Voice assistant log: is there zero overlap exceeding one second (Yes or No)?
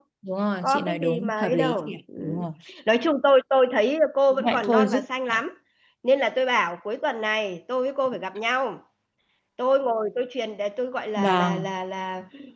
No